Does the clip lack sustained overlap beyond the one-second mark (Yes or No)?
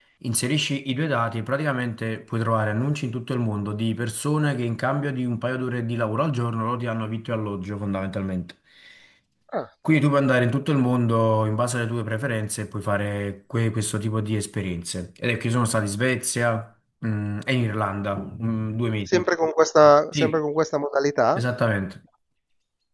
Yes